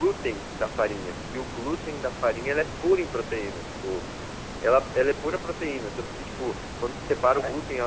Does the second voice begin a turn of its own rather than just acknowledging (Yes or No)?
No